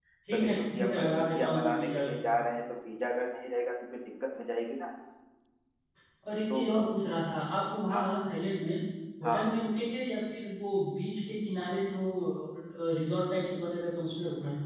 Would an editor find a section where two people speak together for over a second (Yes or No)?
Yes